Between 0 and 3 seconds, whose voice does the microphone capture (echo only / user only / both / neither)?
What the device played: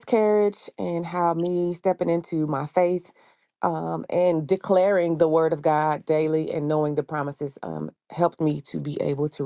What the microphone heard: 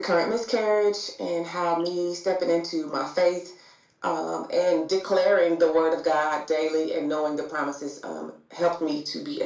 echo only